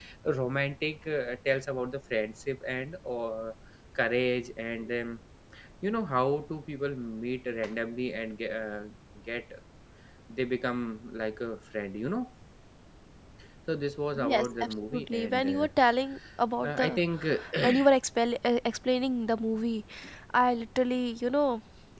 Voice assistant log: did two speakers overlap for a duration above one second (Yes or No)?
Yes